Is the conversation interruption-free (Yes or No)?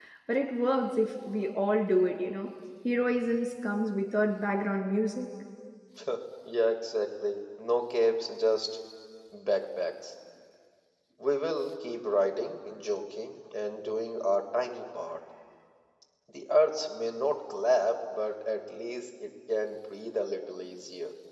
Yes